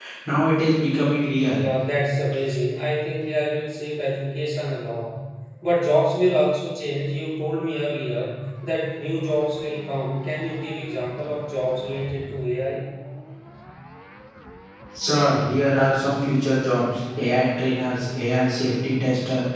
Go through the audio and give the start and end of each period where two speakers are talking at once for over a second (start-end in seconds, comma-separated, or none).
none